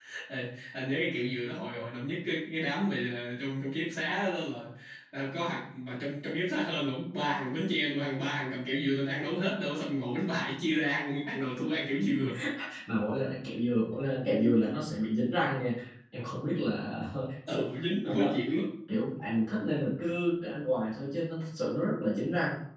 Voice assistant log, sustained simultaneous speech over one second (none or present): none